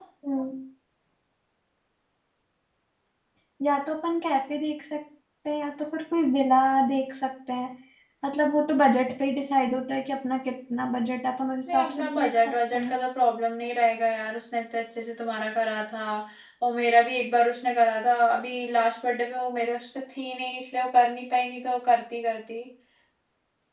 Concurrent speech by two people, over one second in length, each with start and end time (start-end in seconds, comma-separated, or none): 11.7-12.9